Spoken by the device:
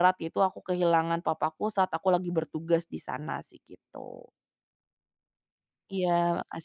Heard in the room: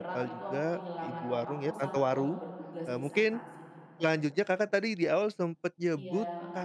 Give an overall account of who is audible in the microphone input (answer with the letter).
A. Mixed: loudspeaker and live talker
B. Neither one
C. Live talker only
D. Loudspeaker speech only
A